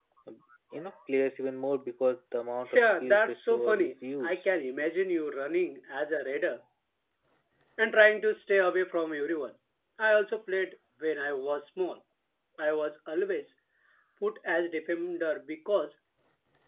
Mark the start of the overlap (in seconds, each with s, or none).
2.7 s